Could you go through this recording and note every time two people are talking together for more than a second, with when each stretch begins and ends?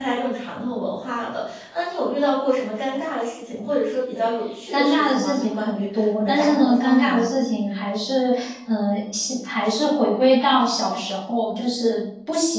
4.7-7.2

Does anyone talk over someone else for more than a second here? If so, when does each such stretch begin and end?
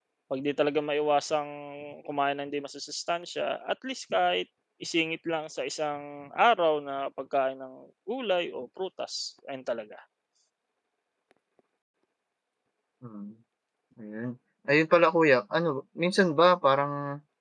none

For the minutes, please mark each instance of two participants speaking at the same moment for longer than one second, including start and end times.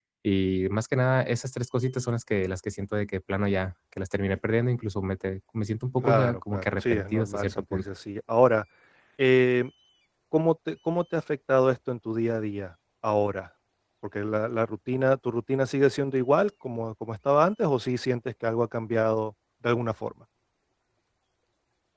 6.0-7.8

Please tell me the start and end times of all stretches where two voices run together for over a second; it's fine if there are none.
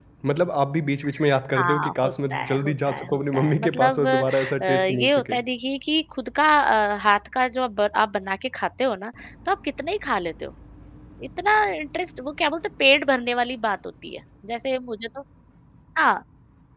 1.6-5.4

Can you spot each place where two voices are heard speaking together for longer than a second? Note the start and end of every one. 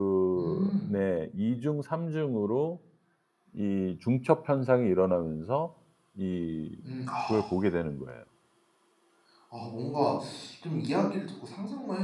none

